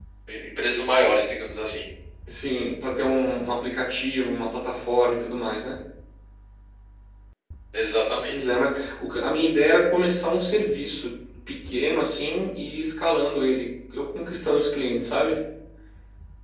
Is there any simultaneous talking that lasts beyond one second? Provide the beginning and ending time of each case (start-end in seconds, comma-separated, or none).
none